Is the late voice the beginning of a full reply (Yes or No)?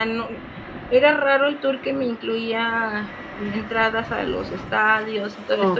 No